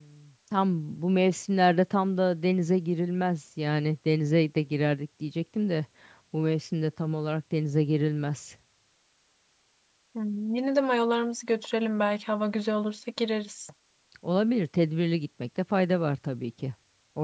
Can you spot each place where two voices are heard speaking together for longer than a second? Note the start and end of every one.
none

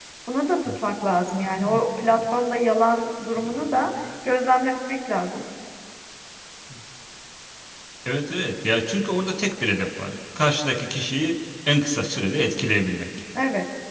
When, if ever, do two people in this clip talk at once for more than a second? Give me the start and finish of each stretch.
none

